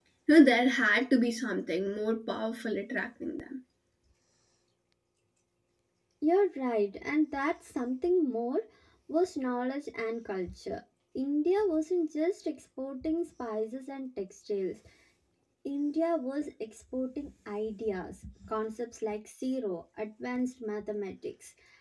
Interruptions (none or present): none